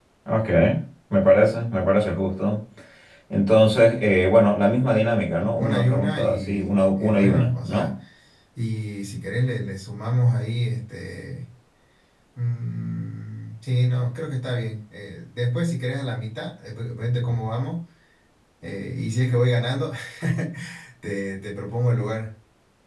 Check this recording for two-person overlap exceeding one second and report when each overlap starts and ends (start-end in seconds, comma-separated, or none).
5.4-7.9